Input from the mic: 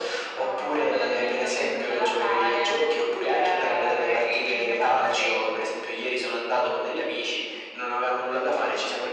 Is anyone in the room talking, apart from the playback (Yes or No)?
No